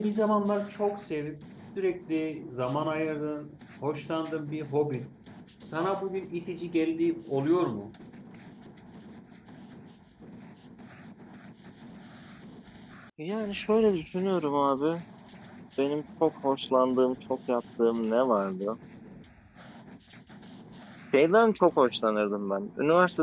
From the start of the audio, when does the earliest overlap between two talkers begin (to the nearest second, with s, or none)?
none